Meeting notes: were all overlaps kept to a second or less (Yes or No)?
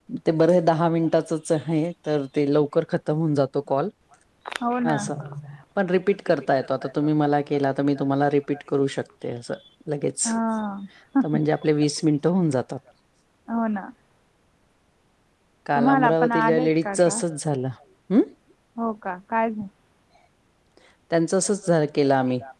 No